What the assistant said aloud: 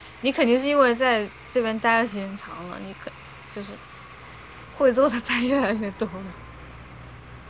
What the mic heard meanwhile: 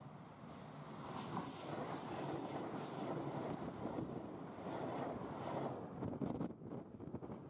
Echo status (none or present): none